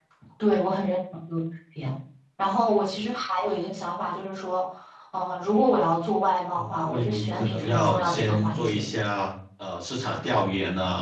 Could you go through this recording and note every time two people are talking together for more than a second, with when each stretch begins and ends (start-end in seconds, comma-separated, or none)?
6.5-8.8